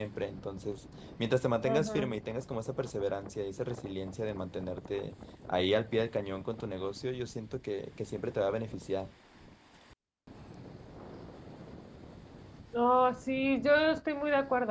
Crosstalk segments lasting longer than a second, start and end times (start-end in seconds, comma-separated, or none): none